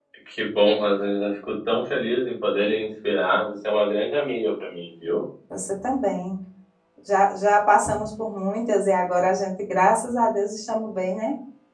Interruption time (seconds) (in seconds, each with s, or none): none